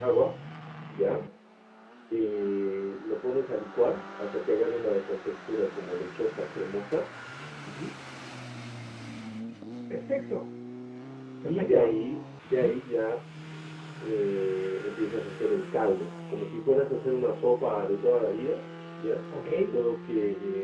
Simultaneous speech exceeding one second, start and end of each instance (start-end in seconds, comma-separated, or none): none